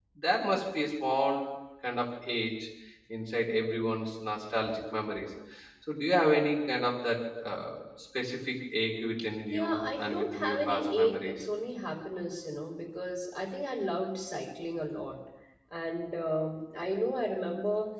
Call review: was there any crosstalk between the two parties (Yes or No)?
Yes